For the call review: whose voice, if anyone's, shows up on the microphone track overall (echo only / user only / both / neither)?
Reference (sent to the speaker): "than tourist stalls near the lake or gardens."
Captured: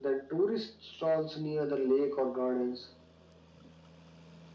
echo only